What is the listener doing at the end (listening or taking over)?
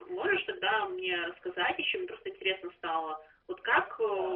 listening